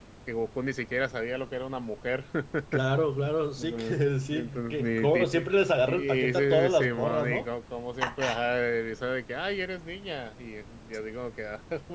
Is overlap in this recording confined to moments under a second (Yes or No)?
No